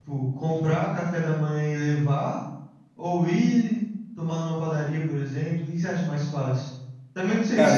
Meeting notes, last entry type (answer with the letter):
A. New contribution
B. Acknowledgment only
B